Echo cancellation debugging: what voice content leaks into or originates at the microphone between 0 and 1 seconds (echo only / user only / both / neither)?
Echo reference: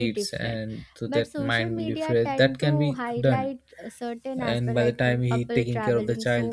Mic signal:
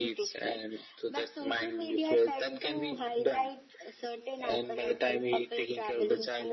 echo only